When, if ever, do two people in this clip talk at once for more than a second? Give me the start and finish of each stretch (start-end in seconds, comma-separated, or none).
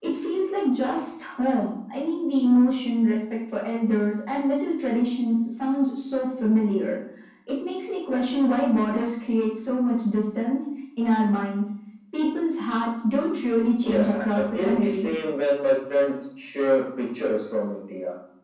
13.8-15.1